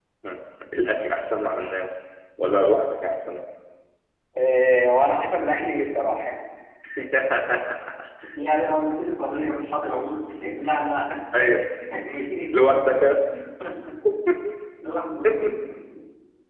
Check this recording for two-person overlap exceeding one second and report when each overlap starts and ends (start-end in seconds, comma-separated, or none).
none